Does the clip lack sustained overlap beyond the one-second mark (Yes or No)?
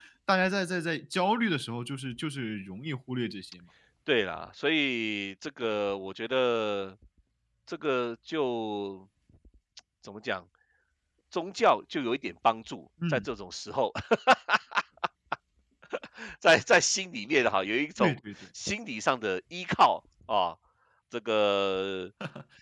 Yes